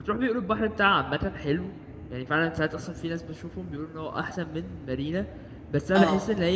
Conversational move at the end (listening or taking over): listening